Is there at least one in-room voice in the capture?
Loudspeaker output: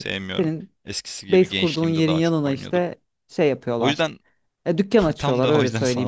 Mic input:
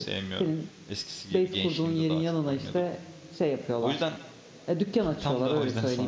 No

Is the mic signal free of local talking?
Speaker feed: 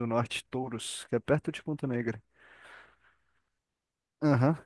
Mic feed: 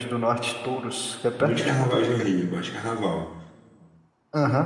No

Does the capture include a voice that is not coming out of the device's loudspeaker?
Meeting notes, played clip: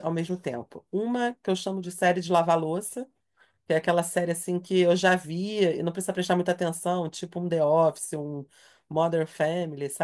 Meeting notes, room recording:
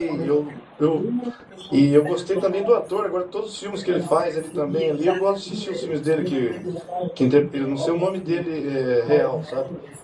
Yes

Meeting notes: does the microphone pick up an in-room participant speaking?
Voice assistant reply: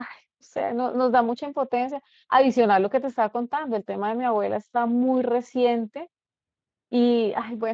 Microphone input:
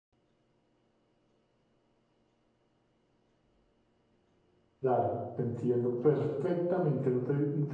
Yes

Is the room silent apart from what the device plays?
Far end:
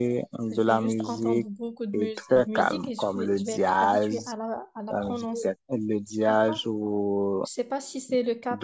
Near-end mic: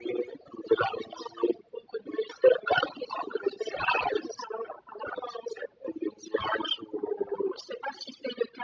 Yes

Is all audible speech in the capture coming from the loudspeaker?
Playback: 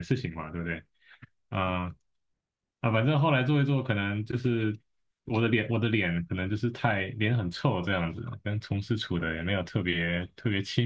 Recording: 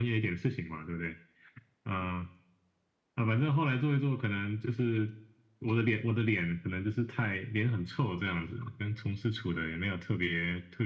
Yes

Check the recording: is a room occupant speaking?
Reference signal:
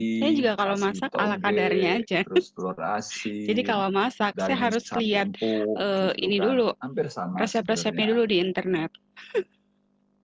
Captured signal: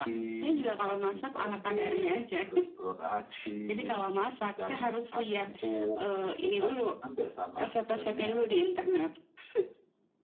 No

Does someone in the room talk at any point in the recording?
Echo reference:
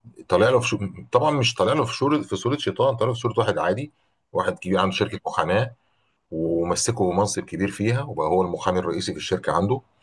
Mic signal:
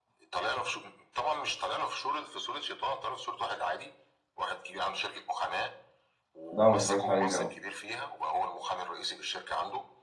Yes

